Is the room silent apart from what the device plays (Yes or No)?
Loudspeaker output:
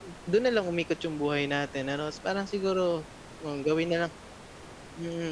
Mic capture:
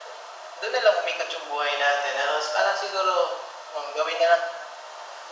Yes